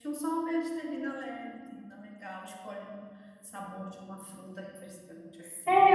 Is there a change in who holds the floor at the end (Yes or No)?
Yes